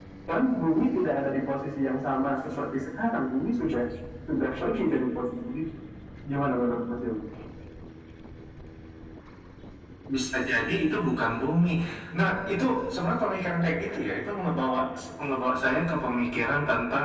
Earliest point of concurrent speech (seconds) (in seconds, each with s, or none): none